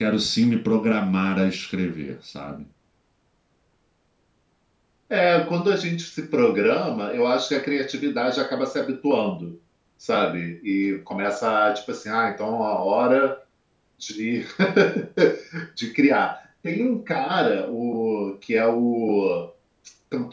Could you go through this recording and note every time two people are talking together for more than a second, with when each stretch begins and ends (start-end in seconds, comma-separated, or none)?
none